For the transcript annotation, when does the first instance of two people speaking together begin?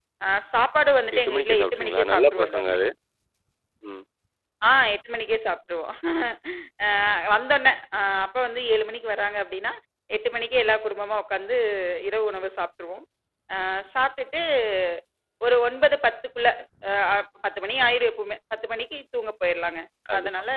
1 s

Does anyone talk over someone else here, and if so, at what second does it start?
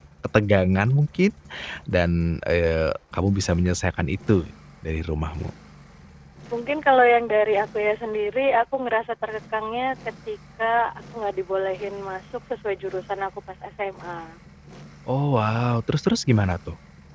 none

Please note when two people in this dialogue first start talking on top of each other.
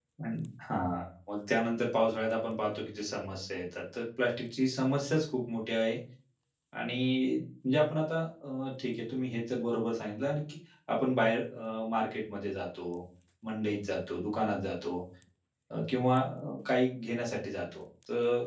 none

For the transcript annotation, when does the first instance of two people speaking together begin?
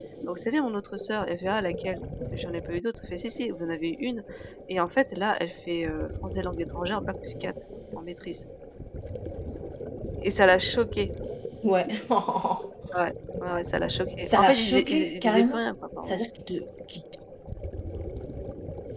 14 s

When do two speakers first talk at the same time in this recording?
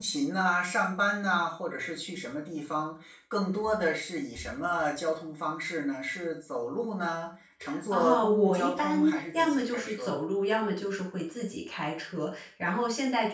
8 s

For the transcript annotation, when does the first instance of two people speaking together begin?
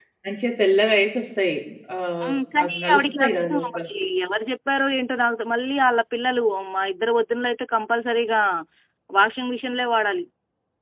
2 s

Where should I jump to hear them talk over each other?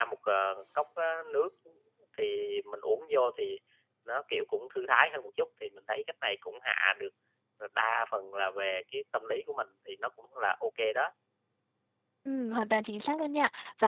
none

